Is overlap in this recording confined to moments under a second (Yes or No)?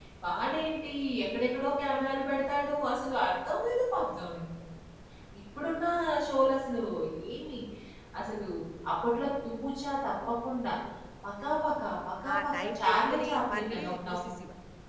No